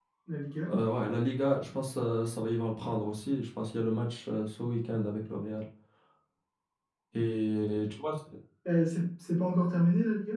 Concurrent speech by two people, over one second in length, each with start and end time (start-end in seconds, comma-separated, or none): none